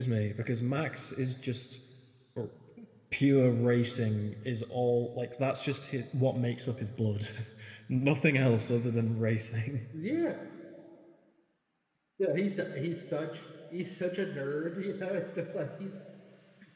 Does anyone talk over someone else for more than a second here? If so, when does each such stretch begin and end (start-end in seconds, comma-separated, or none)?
none